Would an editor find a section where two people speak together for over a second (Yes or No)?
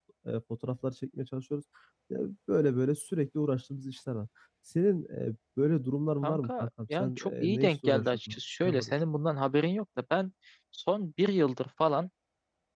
Yes